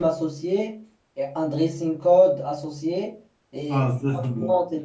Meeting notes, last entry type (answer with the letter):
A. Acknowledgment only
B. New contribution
A